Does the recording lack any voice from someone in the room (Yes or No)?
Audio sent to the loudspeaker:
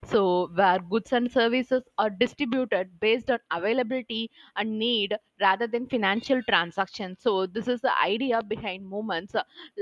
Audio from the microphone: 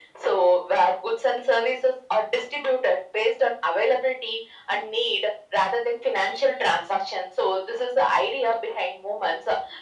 Yes